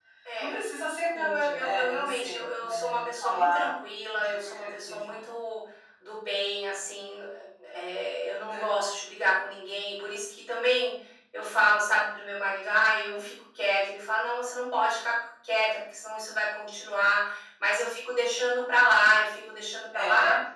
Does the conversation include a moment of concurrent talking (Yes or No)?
Yes